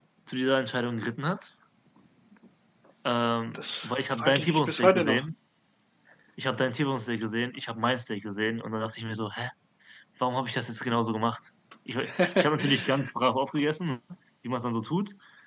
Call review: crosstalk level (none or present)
present